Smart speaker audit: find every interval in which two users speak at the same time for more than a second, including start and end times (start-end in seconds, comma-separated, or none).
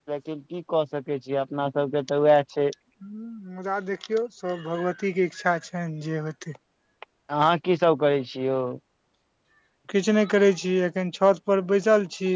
none